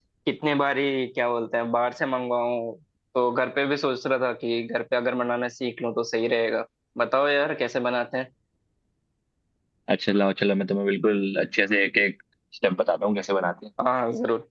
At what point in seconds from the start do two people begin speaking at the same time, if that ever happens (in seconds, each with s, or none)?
none